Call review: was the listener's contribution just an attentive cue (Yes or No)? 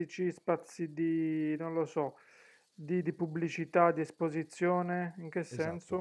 No